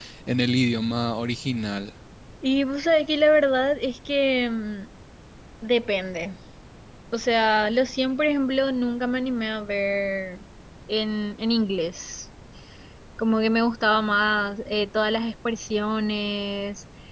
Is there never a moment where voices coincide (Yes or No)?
Yes